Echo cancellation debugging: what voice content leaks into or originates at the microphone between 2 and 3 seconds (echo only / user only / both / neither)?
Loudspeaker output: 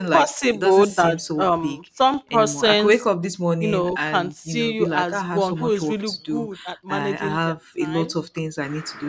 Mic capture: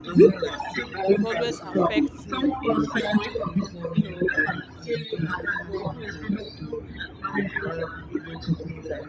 both